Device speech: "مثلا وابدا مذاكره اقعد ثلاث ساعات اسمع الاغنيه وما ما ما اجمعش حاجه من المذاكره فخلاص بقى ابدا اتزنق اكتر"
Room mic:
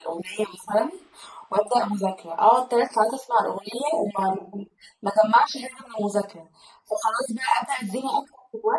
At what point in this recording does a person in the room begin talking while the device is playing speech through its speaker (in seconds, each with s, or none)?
none